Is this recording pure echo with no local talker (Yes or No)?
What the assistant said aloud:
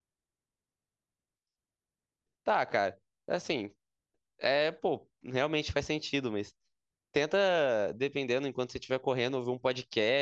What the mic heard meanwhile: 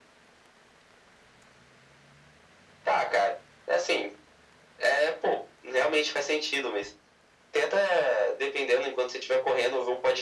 Yes